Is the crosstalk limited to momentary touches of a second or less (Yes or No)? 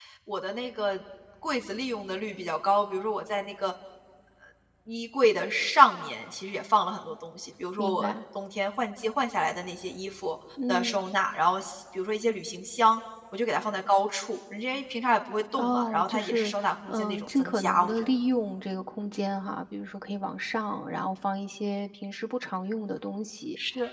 No